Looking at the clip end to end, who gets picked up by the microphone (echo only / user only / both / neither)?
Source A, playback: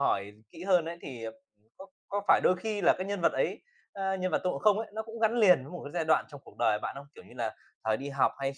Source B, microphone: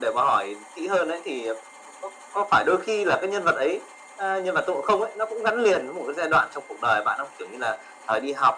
echo only